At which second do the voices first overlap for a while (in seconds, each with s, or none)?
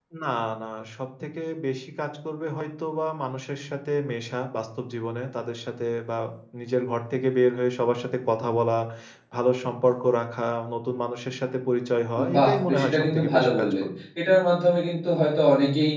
12.2 s